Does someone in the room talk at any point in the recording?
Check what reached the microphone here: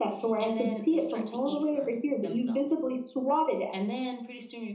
No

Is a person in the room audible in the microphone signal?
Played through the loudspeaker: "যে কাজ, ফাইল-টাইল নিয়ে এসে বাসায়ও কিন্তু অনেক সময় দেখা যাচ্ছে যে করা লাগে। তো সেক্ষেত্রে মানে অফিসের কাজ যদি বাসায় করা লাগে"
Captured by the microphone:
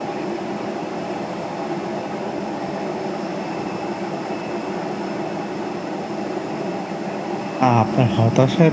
Yes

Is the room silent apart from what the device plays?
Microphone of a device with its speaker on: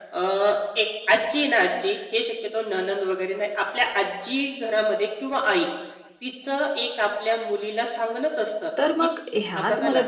No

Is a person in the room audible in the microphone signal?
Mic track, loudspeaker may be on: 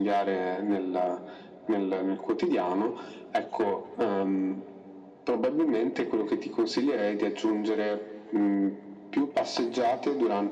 No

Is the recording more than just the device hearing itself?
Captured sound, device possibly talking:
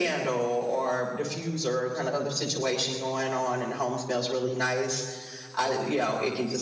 No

